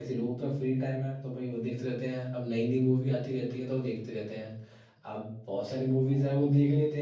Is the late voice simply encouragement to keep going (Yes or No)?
Yes